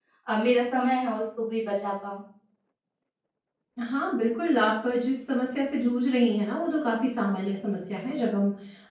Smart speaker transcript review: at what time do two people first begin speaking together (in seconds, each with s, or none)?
none